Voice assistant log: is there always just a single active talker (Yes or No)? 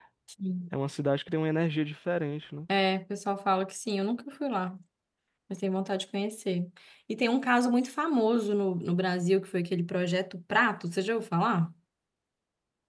Yes